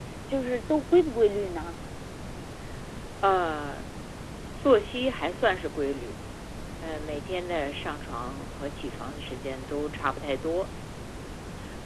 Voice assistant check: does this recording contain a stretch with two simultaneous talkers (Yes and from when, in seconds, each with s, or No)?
No